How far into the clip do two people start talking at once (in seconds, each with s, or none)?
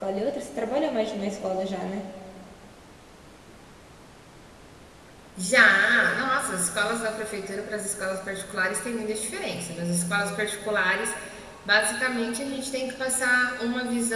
none